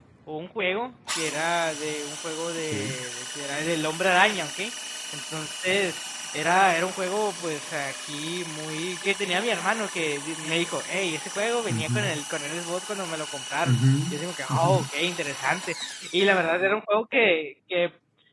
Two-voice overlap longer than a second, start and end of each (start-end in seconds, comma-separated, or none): none